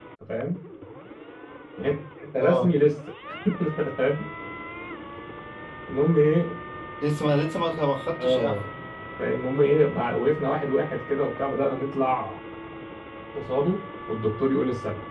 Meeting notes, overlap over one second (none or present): none